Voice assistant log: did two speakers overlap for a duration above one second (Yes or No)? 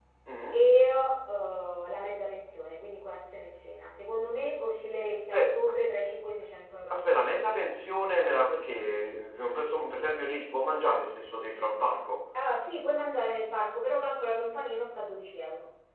No